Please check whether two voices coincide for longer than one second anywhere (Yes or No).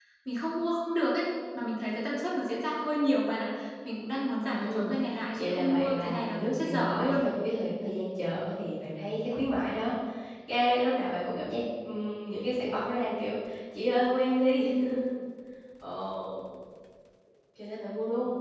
Yes